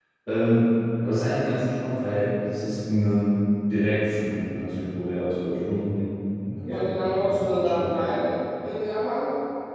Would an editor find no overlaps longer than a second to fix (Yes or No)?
No